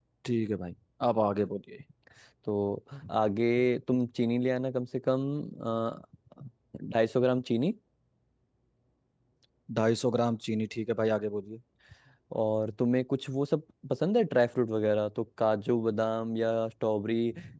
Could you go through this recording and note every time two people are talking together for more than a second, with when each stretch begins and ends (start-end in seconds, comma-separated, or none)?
none